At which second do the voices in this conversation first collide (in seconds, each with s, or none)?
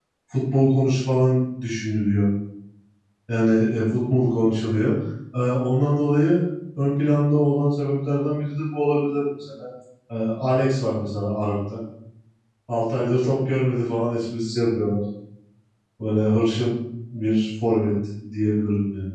none